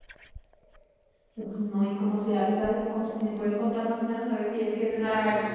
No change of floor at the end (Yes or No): No